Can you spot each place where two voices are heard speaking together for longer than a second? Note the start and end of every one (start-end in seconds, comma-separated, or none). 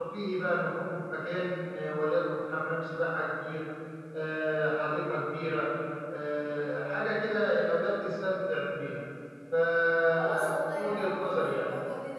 10.1-11.7